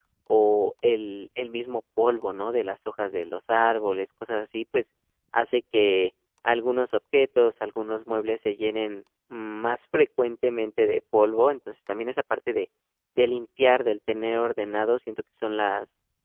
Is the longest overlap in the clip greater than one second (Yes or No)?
No